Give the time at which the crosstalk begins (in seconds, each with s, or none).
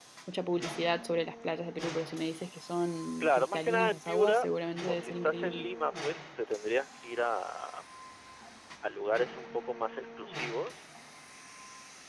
3.2 s